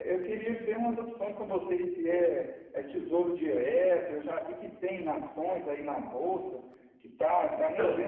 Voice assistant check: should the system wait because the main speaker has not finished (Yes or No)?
Yes